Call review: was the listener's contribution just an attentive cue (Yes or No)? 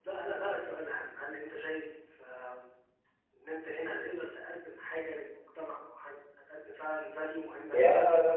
No